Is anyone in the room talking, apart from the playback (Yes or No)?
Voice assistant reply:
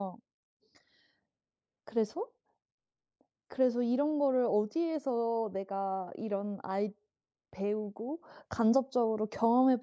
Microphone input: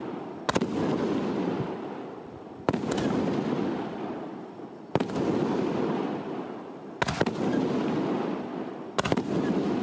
No